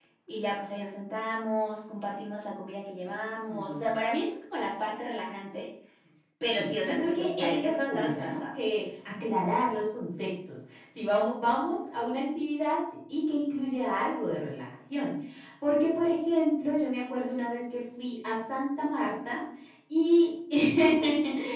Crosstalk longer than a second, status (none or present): present